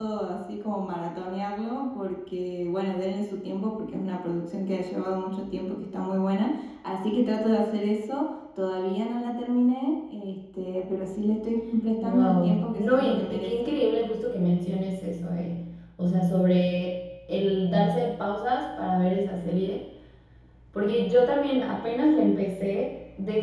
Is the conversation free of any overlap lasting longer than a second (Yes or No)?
No